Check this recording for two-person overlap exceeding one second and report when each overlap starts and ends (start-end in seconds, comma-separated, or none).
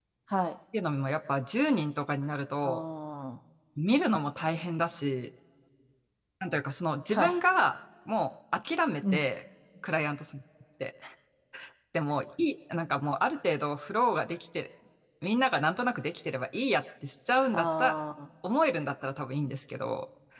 none